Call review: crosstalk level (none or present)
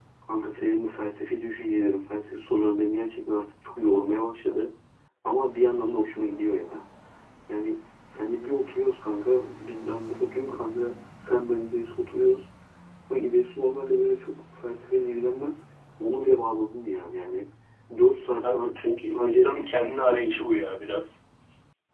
present